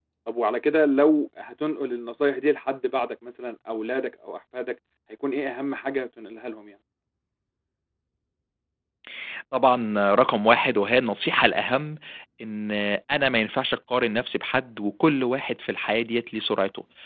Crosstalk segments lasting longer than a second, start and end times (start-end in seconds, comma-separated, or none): none